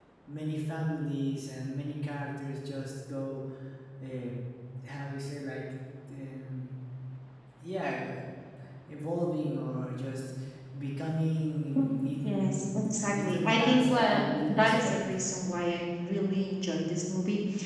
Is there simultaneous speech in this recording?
Yes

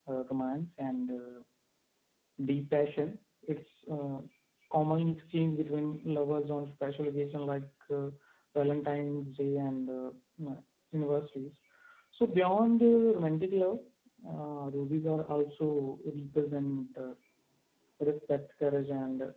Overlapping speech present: No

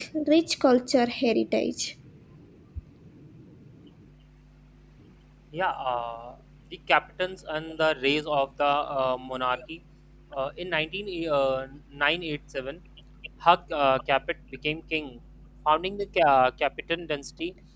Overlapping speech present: No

